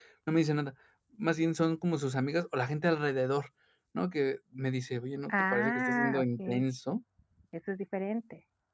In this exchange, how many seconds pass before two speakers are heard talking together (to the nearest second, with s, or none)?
5 s